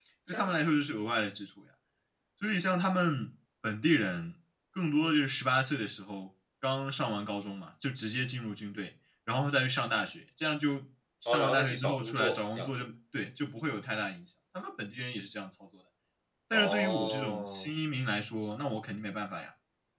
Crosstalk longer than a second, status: present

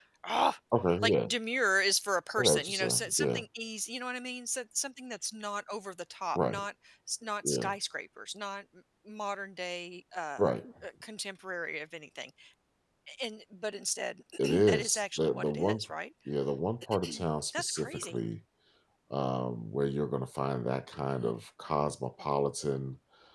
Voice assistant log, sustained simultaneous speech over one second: present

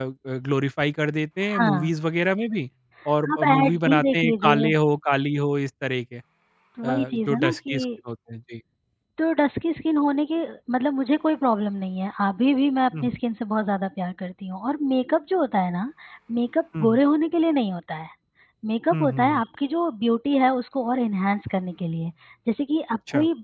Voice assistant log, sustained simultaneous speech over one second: present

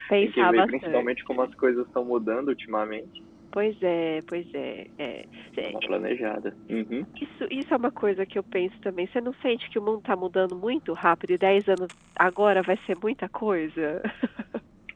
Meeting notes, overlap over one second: present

